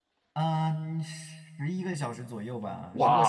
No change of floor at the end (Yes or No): Yes